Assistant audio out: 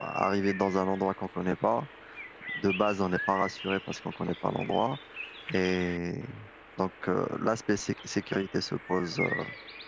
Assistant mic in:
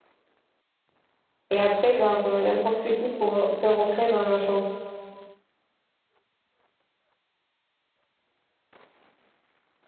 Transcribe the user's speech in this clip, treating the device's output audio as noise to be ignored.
et après, genre, euh, n'importe qui pour- peut rentrer dans la chambre.

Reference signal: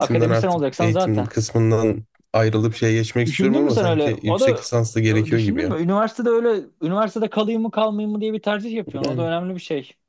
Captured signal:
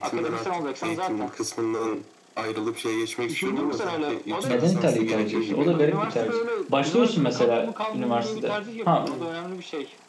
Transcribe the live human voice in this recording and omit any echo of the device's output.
Neden İtalya'yı tercih etti? O da garip bir tercih. Başlıyorsun mesela üniversitede. Ha,

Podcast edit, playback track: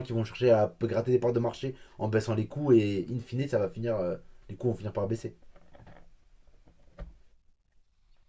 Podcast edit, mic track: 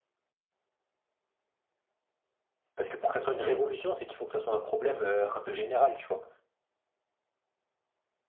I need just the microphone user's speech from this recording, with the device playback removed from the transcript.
Parce que pour que ça soit une révolution, c'est qu'il faut que ça soit un problème euh, un peu général, tu vois.

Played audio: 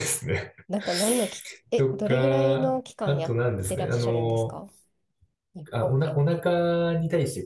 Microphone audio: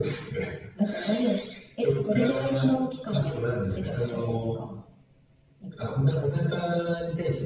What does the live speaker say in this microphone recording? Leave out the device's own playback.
none

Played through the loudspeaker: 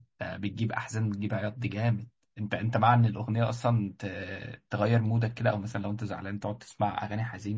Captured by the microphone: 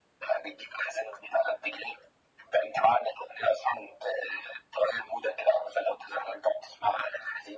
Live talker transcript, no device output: none

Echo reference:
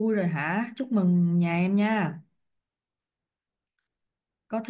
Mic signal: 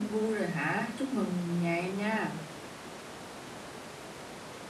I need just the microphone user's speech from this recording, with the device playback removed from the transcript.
none

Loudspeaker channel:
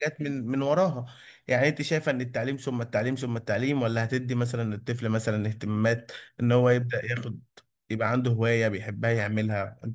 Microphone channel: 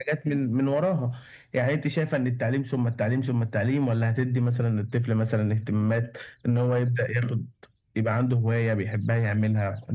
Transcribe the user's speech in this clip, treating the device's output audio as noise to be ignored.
none

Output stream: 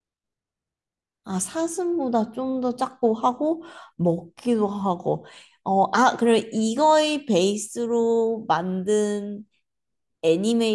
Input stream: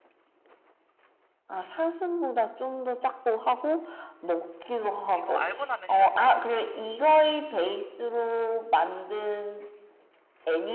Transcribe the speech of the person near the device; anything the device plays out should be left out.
이거 알고 나면 쉬운데.

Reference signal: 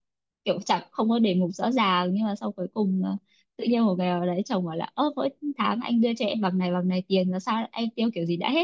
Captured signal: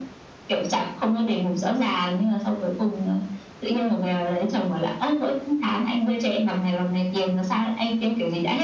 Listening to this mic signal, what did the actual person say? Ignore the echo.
none

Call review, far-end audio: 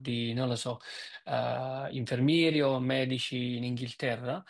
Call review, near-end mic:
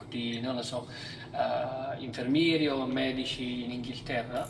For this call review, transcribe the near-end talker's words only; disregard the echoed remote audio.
none

